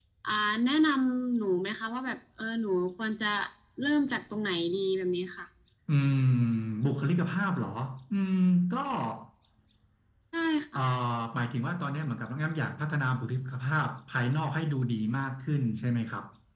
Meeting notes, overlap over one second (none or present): none